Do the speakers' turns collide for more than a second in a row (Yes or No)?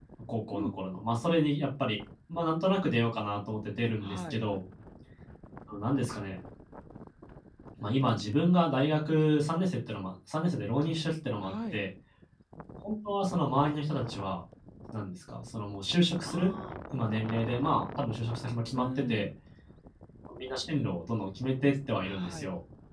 No